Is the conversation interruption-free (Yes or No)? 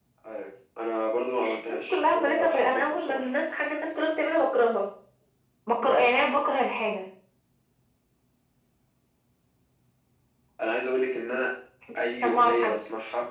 No